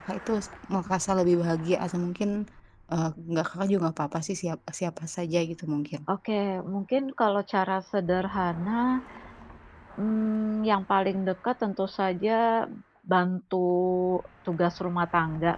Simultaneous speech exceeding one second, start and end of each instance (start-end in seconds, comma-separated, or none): none